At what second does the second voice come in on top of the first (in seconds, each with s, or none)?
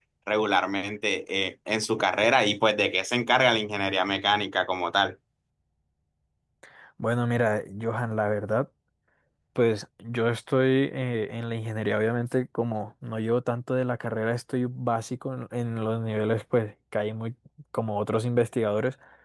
none